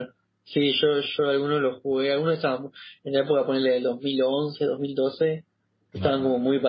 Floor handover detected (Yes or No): No